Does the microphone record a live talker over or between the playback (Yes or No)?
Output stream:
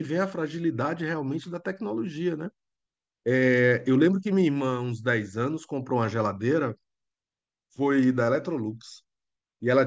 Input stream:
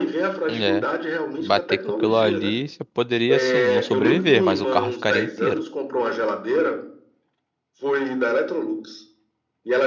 Yes